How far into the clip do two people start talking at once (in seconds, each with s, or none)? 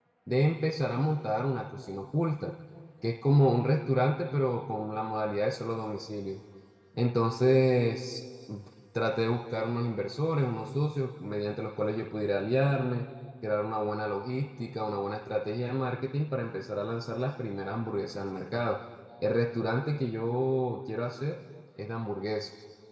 none